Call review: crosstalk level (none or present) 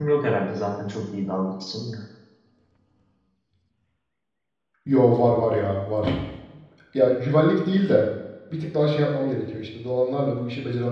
none